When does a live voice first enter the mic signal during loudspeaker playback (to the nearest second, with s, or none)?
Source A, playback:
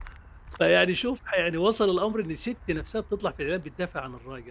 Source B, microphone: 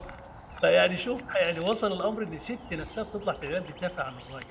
none